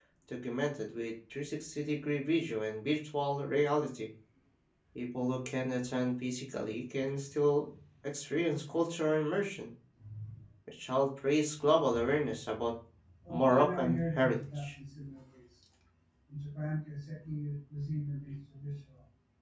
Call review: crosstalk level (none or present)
present